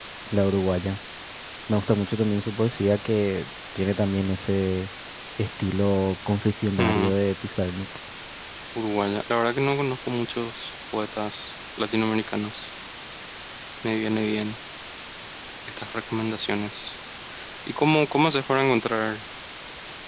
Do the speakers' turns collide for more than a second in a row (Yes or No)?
No